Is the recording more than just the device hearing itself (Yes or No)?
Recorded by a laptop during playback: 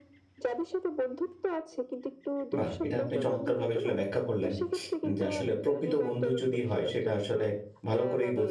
Yes